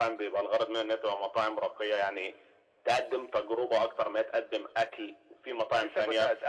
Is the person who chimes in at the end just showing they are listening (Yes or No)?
No